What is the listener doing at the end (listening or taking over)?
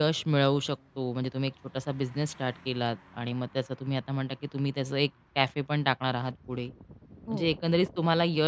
listening